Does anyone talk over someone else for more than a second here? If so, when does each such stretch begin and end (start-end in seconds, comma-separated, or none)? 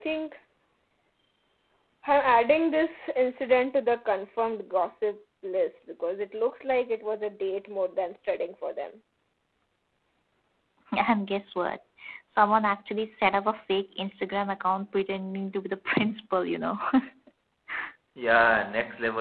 none